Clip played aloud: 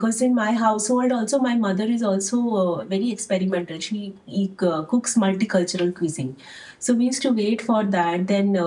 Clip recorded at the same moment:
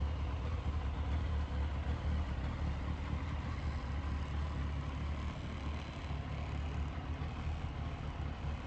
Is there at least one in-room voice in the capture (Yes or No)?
No